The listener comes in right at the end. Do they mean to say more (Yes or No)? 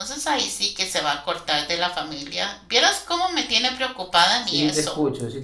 Yes